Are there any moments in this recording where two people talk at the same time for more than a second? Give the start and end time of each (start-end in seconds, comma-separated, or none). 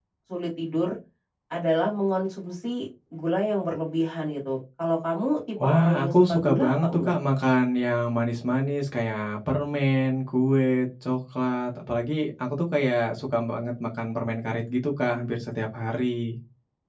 5.6-7.1